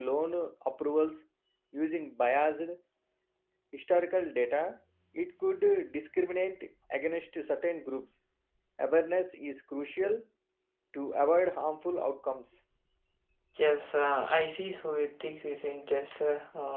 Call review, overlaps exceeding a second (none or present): none